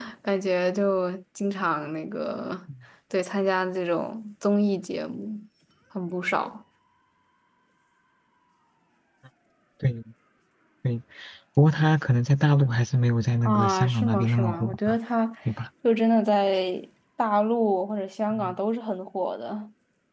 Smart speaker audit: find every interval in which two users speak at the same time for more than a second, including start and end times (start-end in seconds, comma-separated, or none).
13.4-15.0